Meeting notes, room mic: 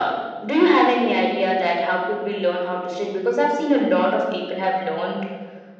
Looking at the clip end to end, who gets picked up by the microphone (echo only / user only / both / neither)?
echo only